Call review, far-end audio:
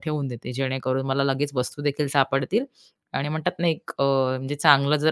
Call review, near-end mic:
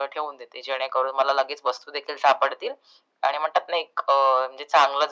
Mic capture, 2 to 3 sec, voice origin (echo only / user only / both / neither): echo only